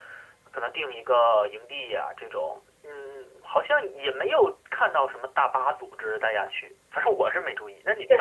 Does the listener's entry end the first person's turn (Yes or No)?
Yes